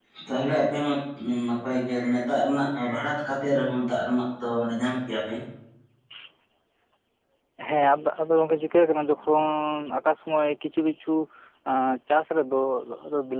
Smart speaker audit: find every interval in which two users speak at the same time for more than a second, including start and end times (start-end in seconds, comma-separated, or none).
none